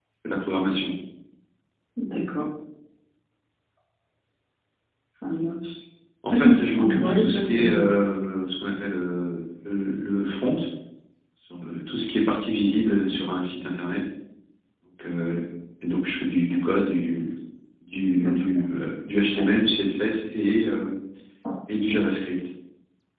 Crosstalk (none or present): present